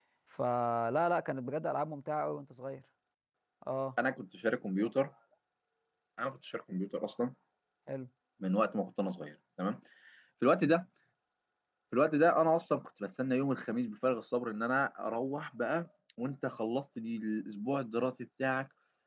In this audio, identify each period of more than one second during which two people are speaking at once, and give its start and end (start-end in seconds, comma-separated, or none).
none